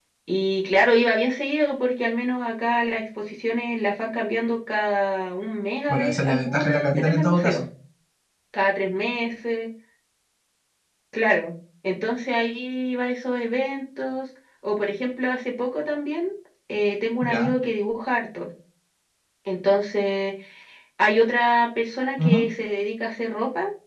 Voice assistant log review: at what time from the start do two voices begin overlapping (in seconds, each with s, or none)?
5.9 s